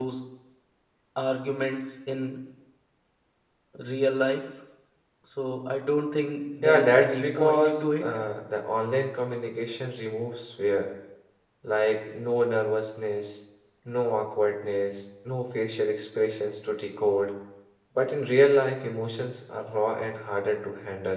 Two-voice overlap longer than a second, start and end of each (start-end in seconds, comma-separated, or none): 6.6-8.1